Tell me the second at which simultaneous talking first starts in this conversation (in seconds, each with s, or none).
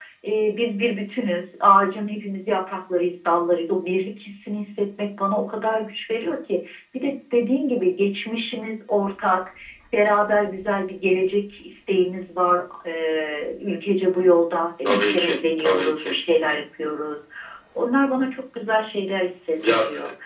14.8 s